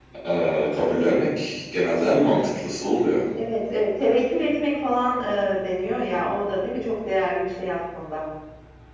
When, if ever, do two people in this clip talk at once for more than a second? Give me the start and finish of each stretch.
none

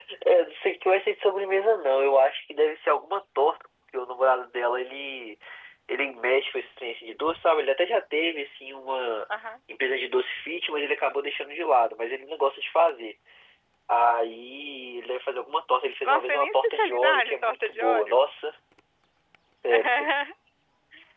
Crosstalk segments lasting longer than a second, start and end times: 16.0-18.2

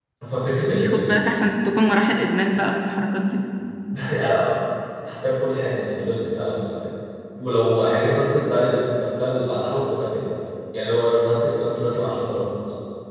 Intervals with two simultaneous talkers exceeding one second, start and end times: none

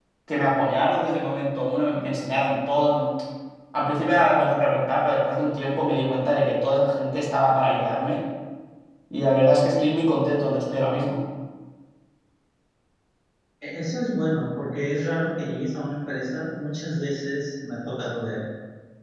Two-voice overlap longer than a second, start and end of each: none

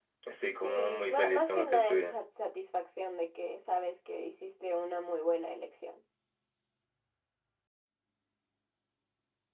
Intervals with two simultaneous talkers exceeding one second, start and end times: 0.6-2.1

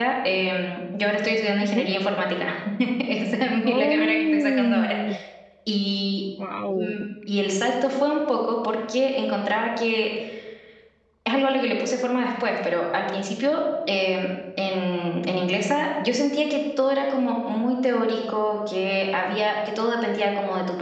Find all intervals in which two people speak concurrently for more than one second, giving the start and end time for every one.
3.6-5.0

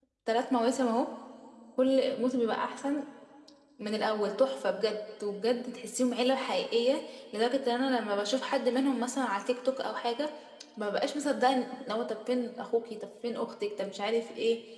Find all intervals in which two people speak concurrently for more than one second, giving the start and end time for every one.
none

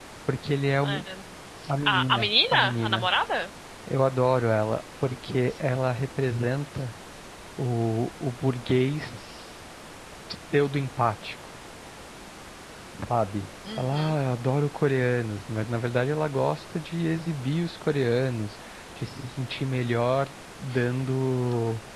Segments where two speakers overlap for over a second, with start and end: 1.9-3.1

